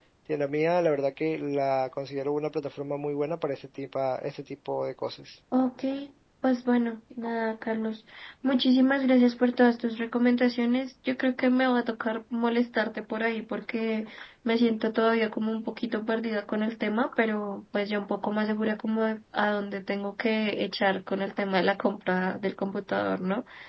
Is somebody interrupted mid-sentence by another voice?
No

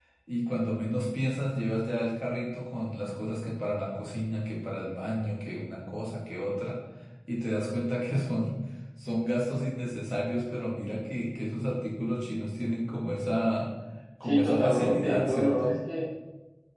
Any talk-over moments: Yes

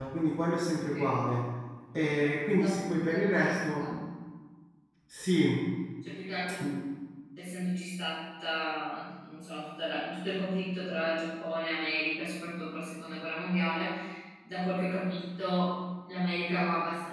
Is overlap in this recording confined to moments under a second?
No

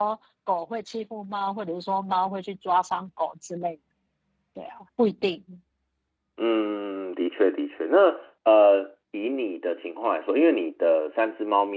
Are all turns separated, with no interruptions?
Yes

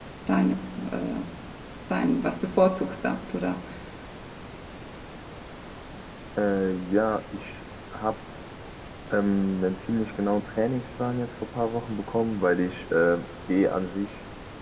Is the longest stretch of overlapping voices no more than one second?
Yes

